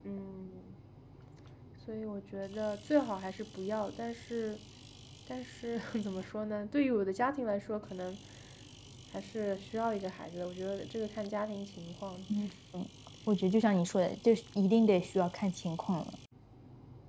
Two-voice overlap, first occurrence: none

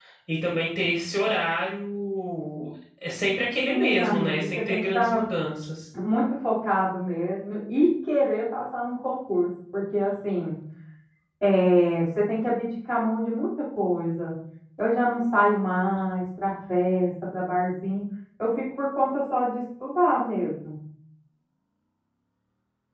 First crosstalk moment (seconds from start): 3.7 s

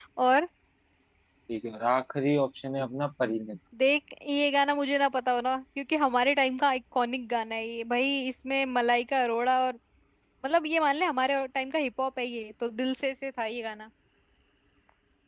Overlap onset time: none

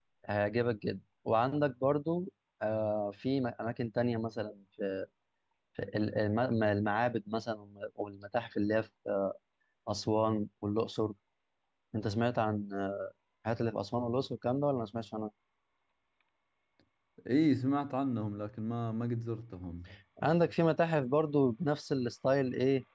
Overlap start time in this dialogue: none

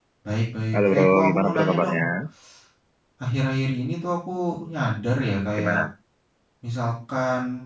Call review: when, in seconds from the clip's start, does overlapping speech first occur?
0.7 s

